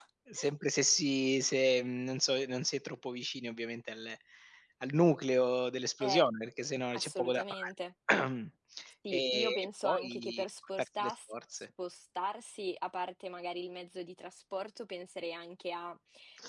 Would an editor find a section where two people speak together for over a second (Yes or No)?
Yes